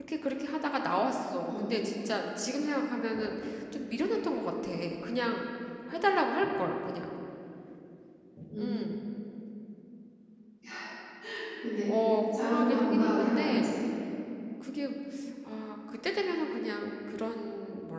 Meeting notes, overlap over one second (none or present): present